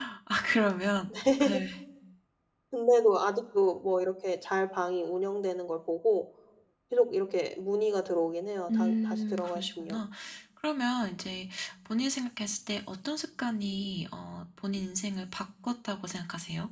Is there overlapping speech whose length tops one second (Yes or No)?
Yes